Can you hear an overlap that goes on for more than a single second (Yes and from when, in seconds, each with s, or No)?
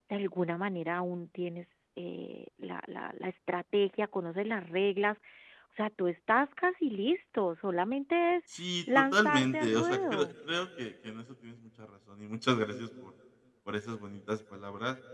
Yes, from 8.9 s